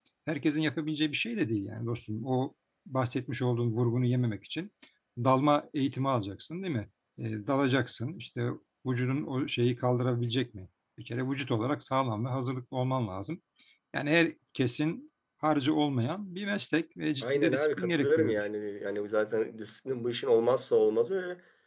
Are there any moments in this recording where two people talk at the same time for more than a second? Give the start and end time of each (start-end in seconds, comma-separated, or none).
17.2-18.4